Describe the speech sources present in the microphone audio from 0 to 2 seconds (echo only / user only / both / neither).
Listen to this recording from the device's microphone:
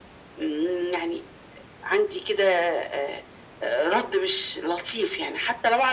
echo only